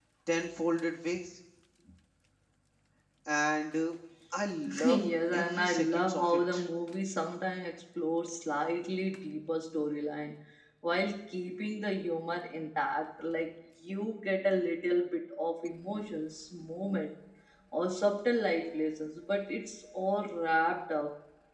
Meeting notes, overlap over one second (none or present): present